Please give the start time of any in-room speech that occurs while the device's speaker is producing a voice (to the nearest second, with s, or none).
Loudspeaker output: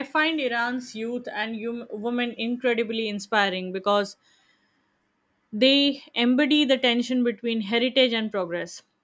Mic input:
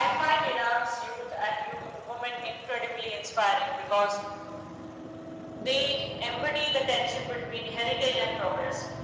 none